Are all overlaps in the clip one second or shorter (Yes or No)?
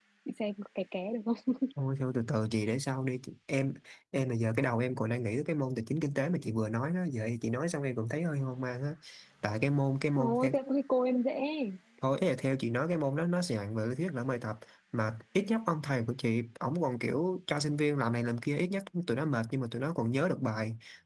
Yes